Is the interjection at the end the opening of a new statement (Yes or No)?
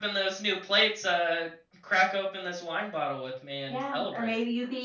Yes